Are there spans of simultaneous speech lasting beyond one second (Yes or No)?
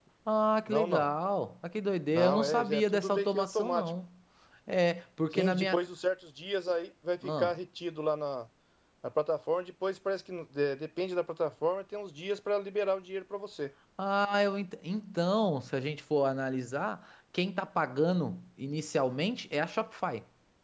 Yes